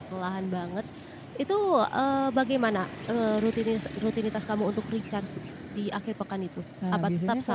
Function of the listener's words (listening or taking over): taking over